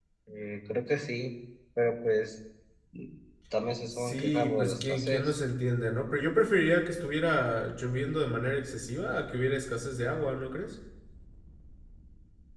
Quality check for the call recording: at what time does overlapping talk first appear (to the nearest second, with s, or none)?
4 s